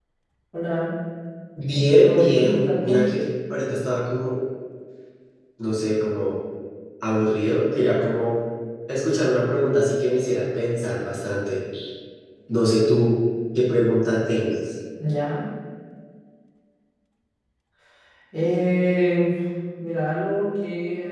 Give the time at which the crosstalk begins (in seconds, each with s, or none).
1.7 s